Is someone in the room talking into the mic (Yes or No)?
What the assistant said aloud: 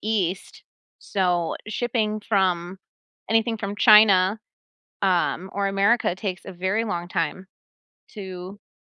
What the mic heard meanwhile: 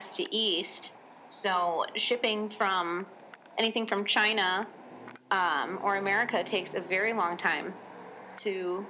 No